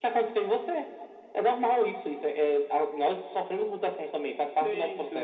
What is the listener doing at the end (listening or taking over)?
taking over